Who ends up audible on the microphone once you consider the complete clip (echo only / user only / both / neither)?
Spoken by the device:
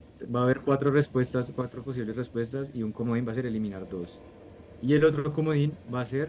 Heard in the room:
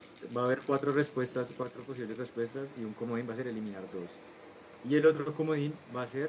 echo only